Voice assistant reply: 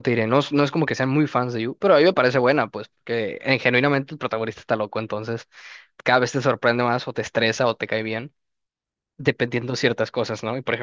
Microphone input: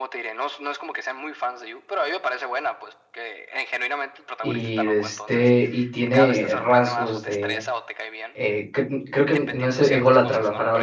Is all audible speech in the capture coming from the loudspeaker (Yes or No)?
No